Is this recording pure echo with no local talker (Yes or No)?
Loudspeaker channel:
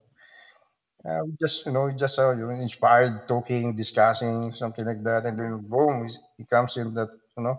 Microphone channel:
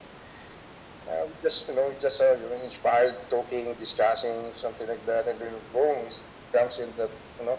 Yes